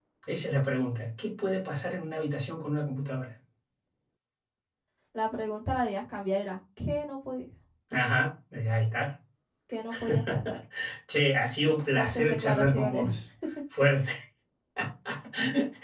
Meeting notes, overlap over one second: present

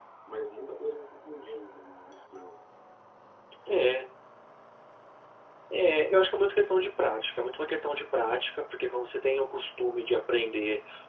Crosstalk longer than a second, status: none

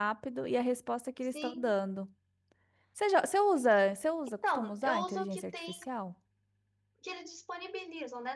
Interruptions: present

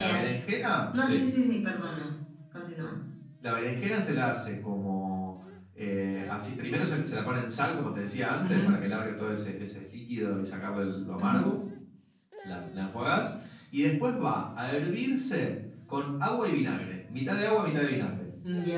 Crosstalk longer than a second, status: none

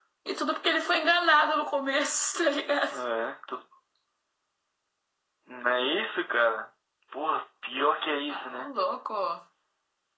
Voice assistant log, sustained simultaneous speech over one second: none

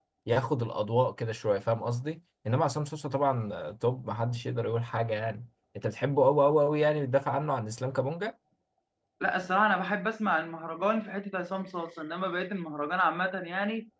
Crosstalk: none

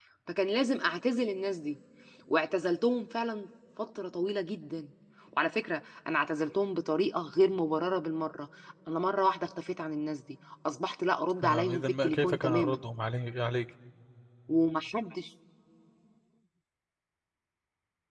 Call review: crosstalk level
present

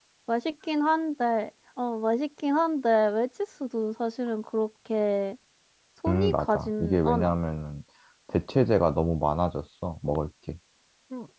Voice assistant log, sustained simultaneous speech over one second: present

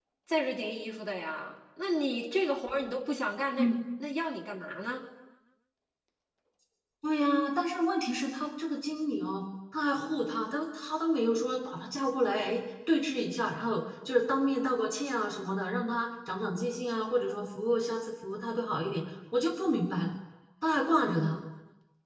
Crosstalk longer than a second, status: none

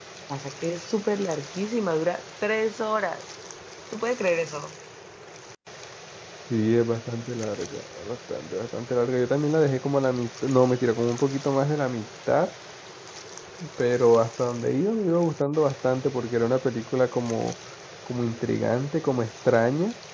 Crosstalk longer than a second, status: none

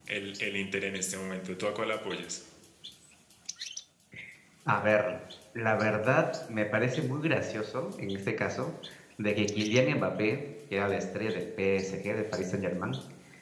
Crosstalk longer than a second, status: none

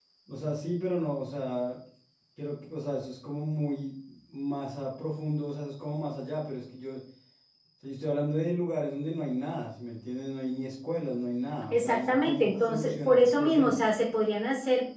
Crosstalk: present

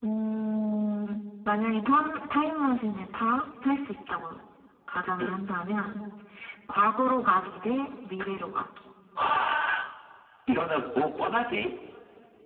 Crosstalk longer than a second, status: none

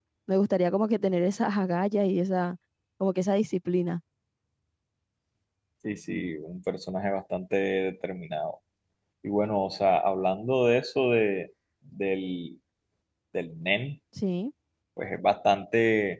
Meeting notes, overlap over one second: none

